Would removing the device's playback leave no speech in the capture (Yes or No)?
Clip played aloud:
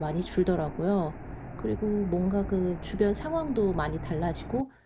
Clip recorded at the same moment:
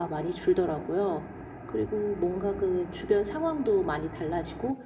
Yes